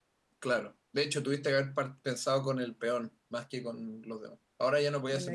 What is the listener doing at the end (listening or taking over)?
taking over